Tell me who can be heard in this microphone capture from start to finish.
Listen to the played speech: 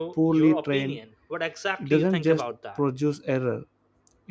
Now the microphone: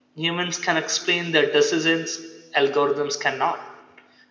user only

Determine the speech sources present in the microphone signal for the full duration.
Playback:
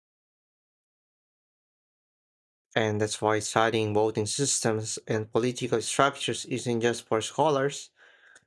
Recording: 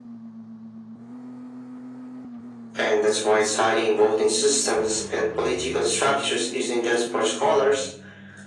echo only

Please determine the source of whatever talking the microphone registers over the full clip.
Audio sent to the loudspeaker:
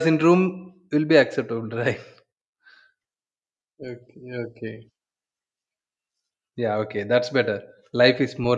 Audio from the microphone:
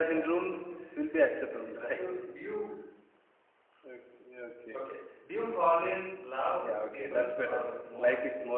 both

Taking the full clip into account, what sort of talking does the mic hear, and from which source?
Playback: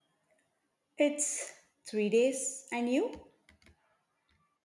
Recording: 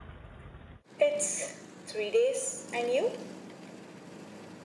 echo only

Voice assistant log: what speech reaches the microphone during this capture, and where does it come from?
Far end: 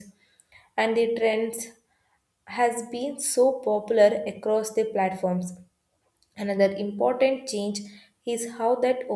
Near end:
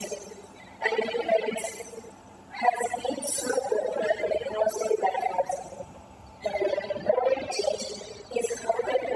echo only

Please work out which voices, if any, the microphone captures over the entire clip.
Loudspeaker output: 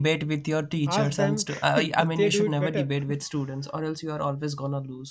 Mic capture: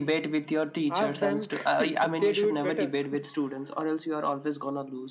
echo only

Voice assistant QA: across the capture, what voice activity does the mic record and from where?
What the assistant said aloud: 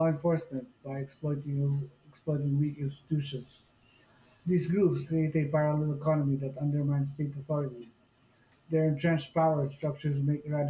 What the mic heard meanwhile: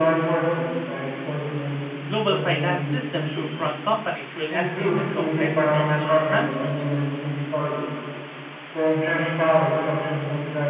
both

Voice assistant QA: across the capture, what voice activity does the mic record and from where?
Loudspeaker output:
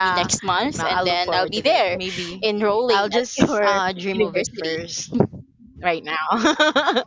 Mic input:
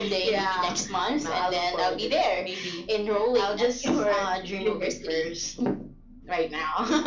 echo only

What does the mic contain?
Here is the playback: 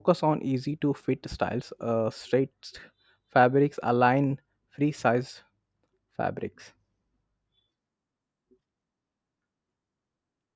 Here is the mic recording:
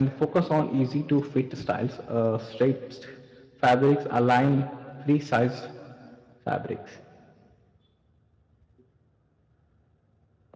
echo only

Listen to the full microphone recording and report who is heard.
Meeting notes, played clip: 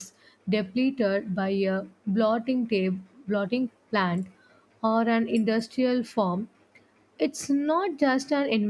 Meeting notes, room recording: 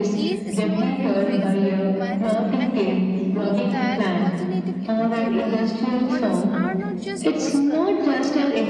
both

